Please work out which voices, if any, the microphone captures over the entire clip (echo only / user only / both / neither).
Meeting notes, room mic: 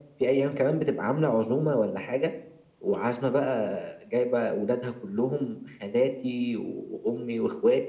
echo only